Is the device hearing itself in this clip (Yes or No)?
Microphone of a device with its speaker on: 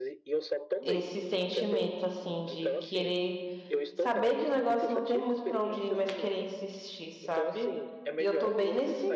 Yes